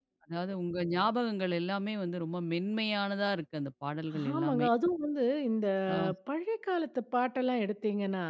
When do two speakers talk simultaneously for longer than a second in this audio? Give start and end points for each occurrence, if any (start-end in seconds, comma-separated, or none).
none